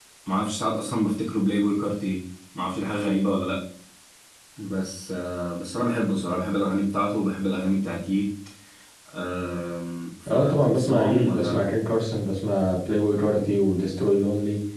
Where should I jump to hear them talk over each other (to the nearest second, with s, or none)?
10 s